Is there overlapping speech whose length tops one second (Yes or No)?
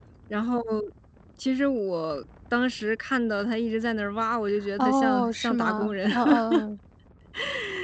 Yes